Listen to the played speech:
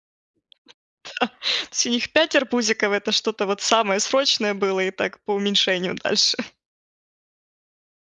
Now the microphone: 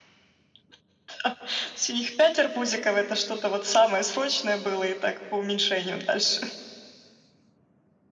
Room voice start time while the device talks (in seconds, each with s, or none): none